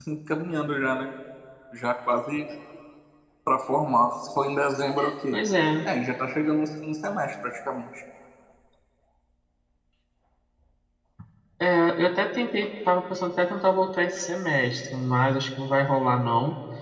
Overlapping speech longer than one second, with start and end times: none

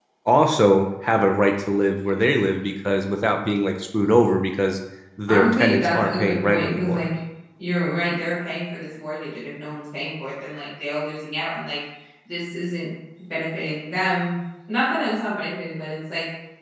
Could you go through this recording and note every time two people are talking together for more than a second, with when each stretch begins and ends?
5.3-7.1

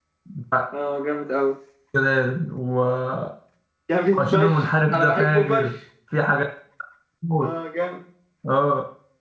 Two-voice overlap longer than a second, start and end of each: 4.2-5.7

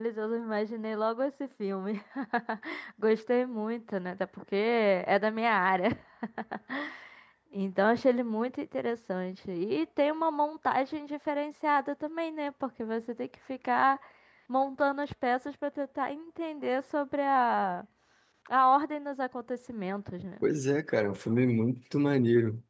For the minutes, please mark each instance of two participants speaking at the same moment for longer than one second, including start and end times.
none

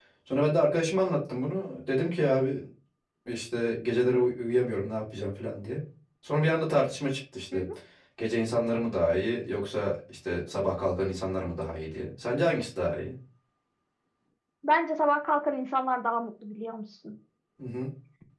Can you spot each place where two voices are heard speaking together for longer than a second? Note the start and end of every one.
none

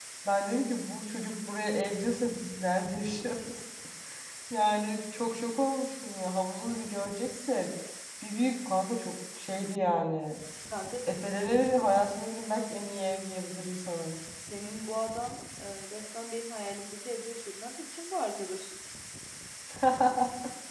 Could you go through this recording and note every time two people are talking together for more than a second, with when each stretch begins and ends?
none

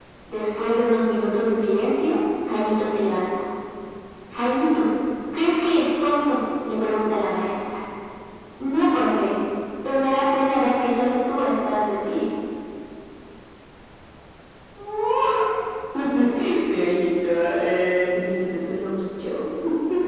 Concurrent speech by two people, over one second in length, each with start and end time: none

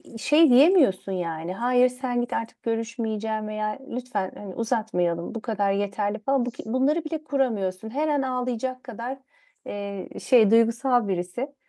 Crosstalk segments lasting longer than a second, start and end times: none

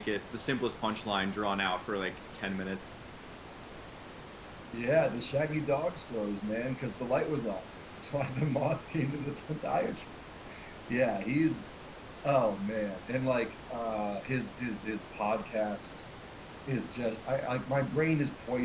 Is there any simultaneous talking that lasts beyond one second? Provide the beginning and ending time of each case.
none

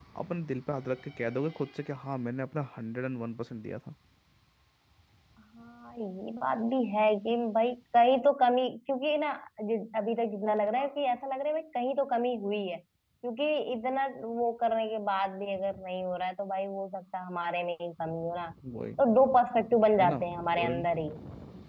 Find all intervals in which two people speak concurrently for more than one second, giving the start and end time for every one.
none

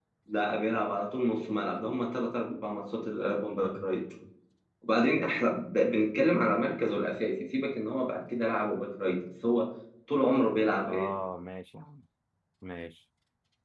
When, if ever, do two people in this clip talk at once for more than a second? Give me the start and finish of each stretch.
none

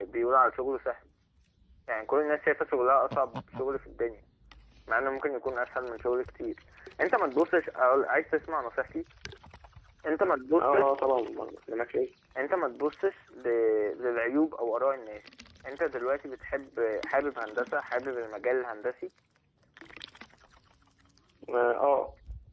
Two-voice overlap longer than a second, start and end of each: none

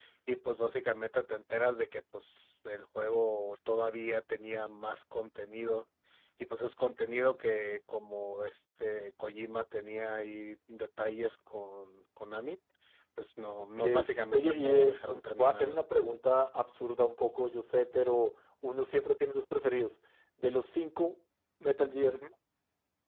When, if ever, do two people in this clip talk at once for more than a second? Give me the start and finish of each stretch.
14.3-16.2

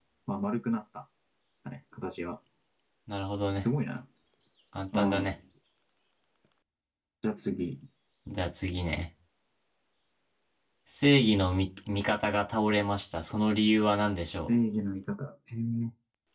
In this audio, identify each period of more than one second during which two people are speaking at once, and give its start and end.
none

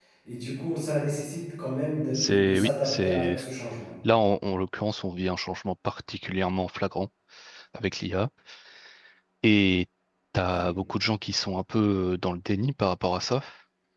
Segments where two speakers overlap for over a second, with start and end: 2.1-3.4

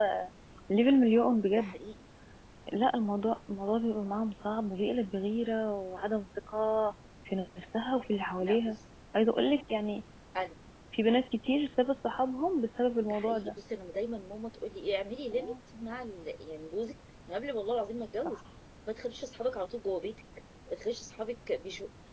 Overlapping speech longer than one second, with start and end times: none

